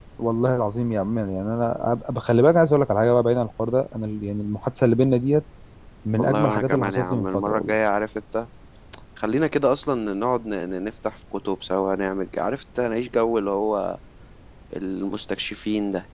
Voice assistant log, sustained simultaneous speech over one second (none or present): present